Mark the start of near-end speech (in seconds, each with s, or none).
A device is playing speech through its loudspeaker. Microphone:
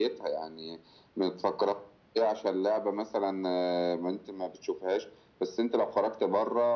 none